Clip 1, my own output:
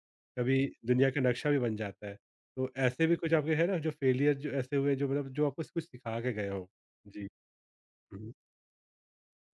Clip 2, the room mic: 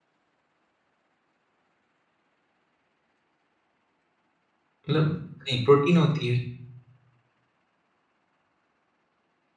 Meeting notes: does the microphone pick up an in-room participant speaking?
Yes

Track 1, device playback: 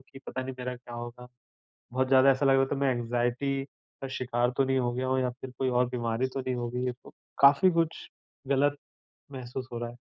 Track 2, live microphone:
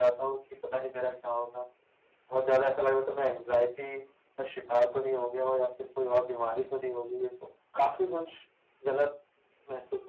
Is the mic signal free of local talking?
Yes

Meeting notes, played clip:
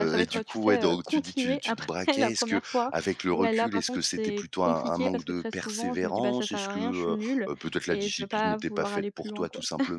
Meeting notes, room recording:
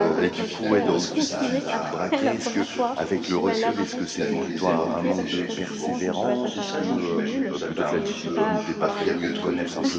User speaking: Yes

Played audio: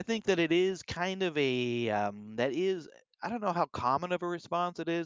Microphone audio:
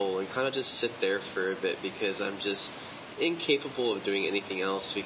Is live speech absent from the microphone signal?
No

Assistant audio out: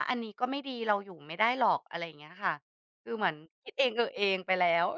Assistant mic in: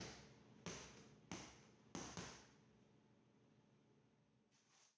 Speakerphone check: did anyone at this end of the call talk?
No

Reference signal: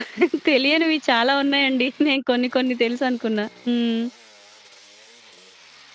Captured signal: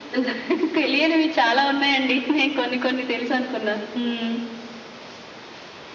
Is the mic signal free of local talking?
Yes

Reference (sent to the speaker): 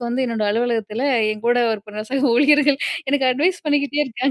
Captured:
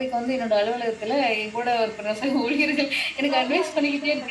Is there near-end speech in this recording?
Yes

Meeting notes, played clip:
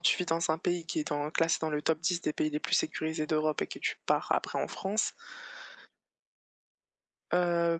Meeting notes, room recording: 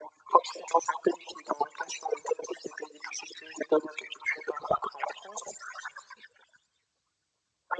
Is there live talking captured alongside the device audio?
No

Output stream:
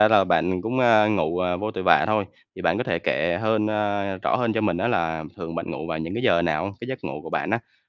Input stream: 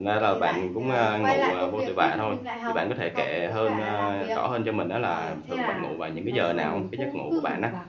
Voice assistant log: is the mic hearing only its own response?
No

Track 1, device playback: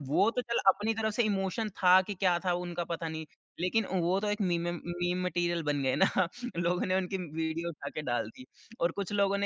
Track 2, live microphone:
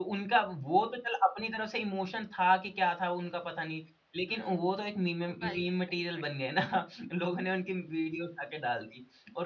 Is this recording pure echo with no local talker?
No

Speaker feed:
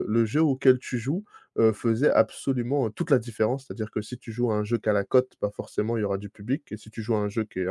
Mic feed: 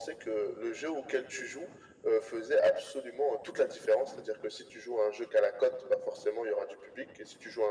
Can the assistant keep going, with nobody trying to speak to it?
Yes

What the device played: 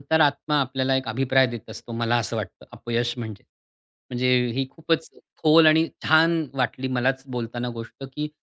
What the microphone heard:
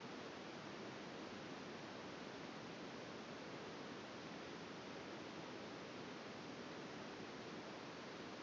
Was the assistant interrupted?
No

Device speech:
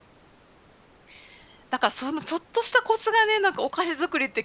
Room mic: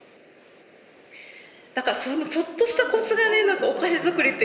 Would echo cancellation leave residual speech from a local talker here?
Yes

